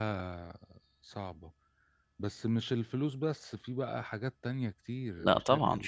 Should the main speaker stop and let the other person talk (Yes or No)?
Yes